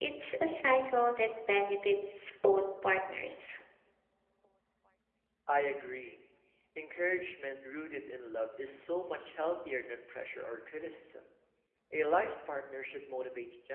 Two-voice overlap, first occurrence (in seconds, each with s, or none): none